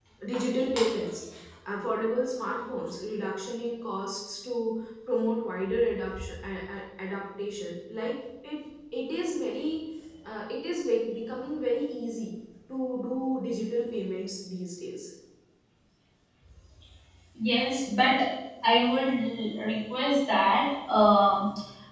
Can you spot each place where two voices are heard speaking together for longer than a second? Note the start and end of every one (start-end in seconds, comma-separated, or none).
none